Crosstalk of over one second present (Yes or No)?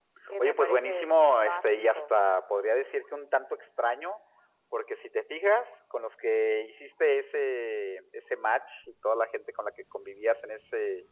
Yes